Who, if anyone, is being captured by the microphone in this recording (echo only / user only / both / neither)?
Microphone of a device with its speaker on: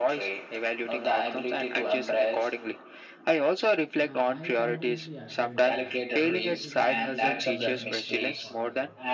both